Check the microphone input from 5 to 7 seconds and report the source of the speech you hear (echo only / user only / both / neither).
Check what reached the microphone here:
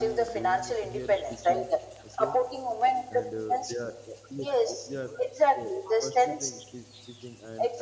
both